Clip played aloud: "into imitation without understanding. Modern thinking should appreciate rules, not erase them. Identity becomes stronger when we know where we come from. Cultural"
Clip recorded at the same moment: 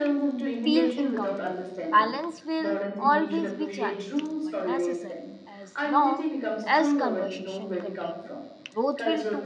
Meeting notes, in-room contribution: present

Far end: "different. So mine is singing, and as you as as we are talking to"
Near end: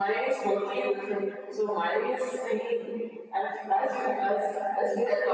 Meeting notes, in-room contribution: none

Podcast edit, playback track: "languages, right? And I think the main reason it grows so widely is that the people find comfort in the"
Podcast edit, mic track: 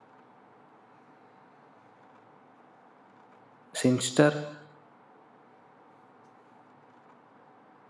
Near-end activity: present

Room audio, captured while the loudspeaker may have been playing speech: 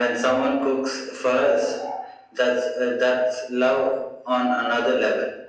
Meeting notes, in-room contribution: none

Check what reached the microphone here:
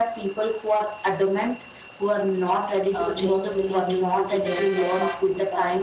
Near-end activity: present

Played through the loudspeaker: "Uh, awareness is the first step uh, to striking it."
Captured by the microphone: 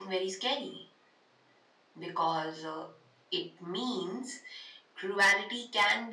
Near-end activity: present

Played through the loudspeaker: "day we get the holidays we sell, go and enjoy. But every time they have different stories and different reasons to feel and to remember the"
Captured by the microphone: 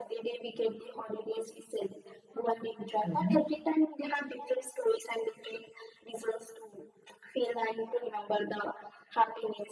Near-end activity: present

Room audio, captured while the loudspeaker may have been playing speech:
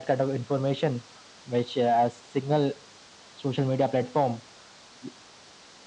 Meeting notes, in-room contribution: none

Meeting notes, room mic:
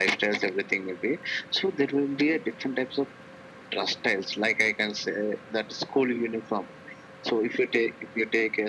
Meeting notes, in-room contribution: none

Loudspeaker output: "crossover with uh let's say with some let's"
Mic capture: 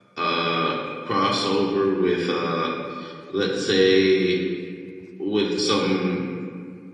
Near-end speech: none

